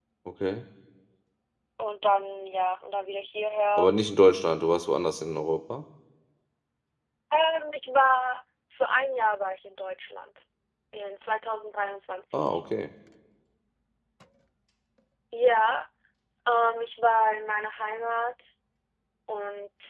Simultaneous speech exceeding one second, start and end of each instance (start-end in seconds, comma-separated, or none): none